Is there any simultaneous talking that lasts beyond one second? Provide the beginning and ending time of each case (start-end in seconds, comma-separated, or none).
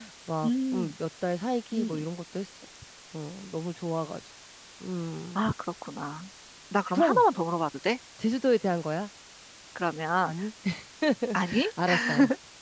none